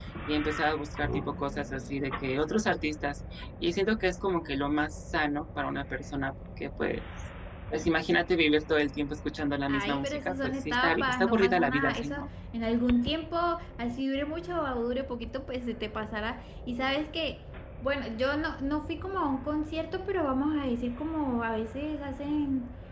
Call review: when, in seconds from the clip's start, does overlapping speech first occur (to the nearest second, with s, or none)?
10 s